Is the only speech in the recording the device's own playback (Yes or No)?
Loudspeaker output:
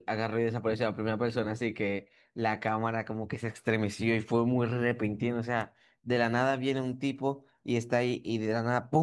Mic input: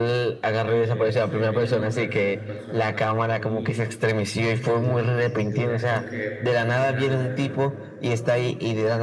No